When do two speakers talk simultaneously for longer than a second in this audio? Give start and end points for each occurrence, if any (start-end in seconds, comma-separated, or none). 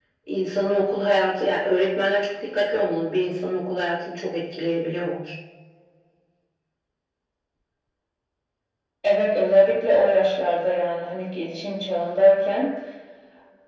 none